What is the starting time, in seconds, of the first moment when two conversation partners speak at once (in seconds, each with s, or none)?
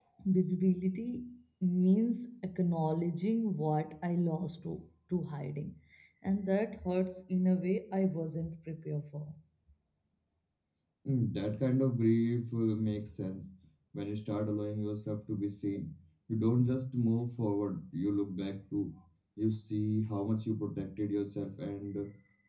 none